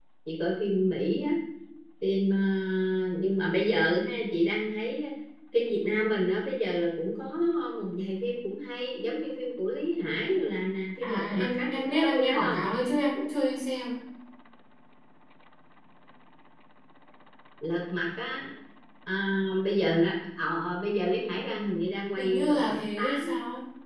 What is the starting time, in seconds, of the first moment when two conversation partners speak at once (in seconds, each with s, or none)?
11.0 s